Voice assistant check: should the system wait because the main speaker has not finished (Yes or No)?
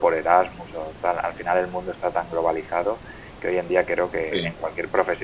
Yes